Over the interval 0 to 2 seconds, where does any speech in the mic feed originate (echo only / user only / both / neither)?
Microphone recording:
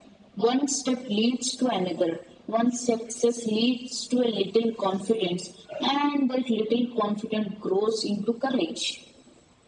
echo only